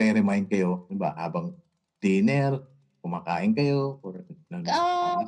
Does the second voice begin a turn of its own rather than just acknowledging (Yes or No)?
Yes